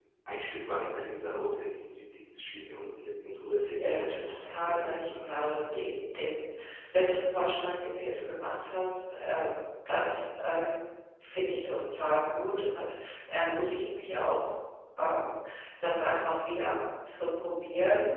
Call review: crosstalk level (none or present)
present